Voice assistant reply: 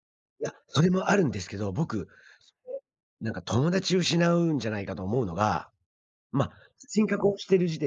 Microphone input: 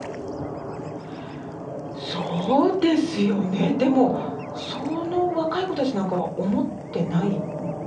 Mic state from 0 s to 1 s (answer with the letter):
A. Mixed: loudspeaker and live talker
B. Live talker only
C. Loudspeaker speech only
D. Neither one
D